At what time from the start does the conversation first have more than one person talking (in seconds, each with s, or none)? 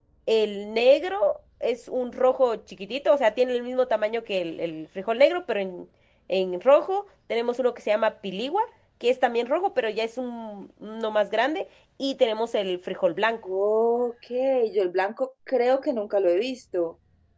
none